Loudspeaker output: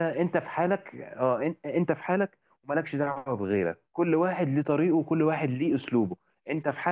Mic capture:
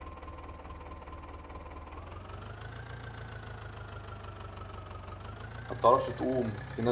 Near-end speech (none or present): present